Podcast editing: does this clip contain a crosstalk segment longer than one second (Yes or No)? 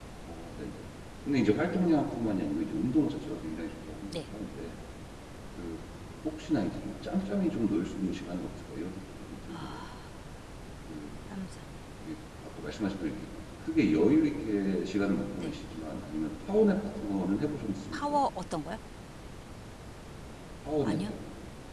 No